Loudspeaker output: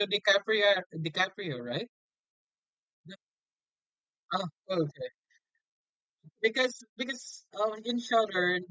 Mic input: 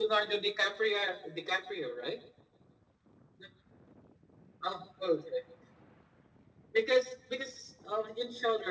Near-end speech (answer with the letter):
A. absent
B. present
A